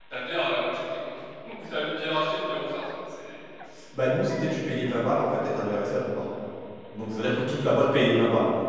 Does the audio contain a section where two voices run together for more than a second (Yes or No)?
No